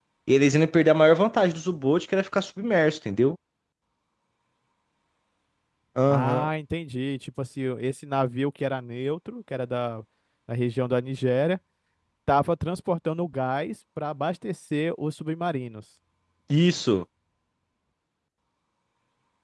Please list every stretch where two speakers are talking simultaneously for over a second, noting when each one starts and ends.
none

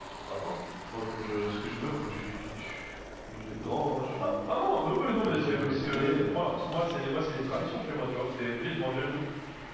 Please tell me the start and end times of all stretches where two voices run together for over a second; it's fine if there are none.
5.2-6.9

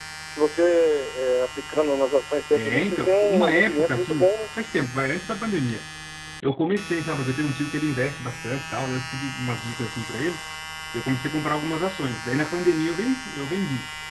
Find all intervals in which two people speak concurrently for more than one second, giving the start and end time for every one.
2.5-4.5

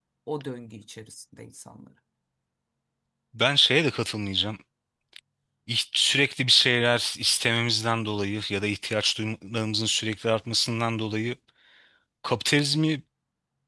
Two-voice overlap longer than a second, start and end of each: none

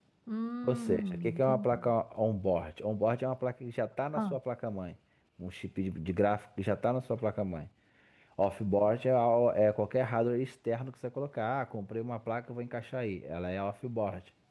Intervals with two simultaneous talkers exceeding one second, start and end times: 0.6-1.9

